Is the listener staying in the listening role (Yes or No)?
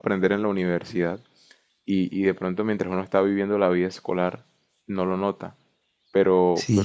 No